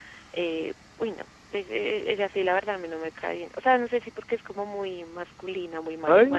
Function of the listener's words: taking over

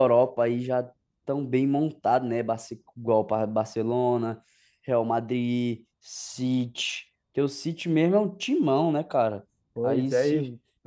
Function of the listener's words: taking over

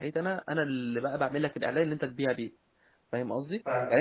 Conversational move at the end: listening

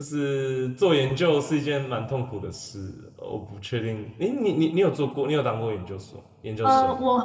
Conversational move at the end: taking over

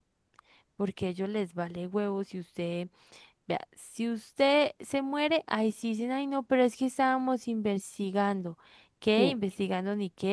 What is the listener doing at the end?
listening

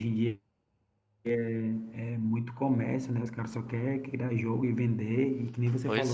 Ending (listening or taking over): listening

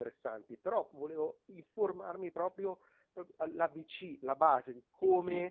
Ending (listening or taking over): listening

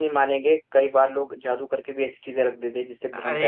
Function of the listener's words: taking over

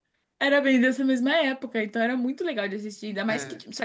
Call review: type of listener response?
listening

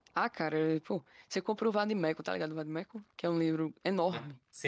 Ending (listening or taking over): taking over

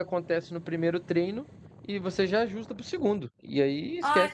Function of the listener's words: taking over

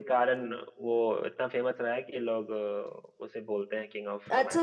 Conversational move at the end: taking over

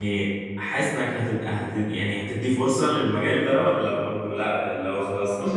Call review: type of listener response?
taking over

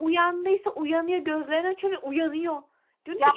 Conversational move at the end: listening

